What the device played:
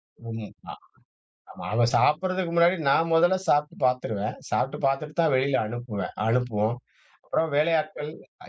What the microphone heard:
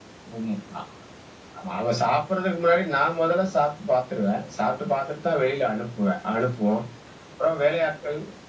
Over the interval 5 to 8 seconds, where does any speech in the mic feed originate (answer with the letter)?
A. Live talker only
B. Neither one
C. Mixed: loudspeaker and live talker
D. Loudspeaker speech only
D